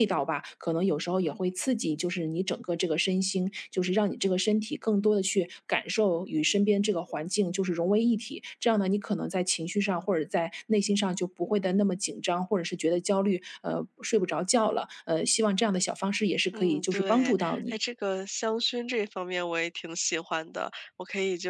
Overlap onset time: 16.5 s

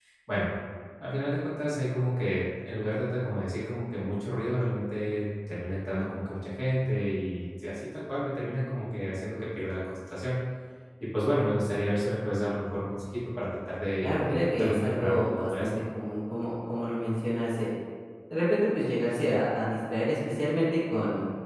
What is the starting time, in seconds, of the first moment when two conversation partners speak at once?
14.0 s

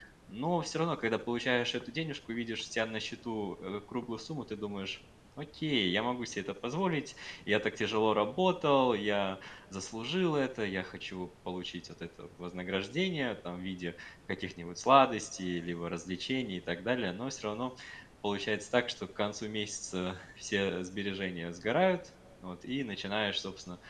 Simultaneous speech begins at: none

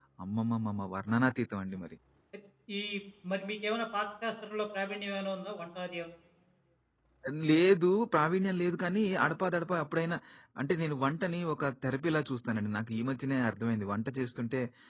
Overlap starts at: none

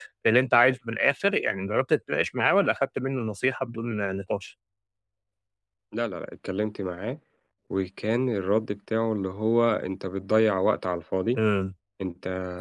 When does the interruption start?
none

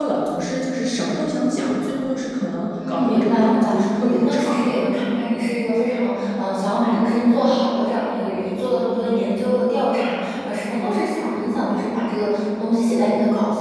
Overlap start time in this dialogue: 2.8 s

